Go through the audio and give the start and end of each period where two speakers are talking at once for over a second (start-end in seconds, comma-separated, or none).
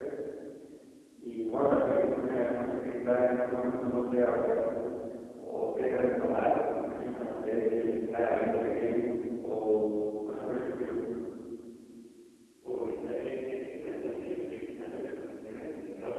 none